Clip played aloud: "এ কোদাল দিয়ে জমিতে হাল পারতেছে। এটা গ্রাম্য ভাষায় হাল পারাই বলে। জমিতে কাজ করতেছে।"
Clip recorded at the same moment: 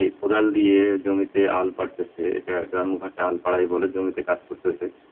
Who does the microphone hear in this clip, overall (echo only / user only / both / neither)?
echo only